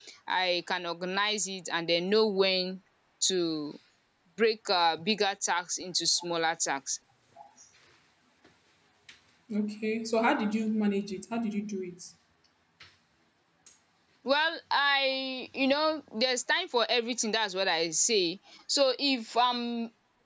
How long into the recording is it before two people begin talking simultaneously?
none

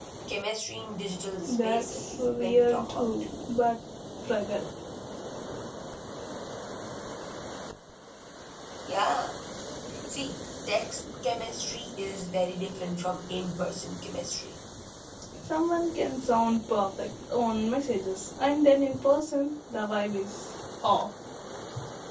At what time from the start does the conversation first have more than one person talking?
1.6 s

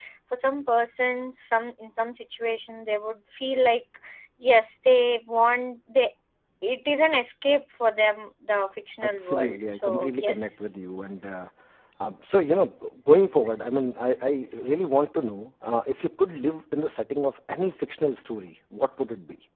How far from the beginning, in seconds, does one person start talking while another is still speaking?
9.0 s

